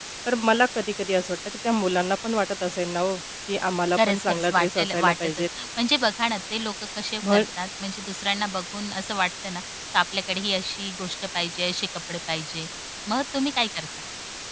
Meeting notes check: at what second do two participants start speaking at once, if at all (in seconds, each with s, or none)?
3.9 s